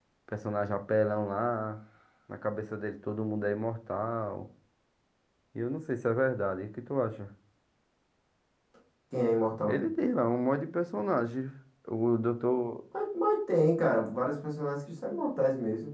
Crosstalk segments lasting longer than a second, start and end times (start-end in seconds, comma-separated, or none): none